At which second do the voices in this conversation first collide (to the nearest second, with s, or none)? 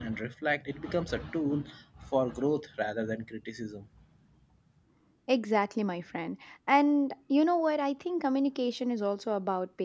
none